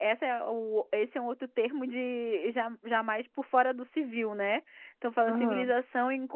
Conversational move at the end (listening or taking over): listening